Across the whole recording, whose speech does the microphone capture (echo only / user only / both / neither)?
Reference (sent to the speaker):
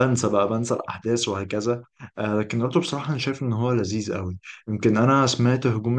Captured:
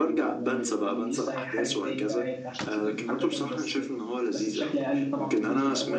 both